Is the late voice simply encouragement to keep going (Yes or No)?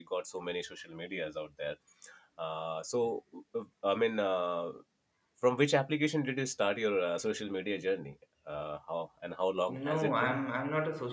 No